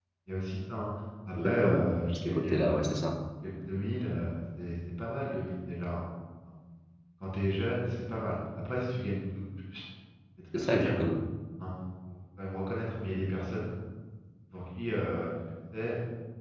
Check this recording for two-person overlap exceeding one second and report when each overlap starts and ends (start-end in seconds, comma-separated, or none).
1.4-3.0